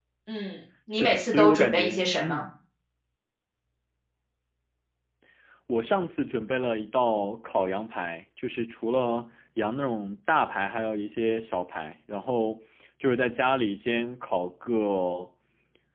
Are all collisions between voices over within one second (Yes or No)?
No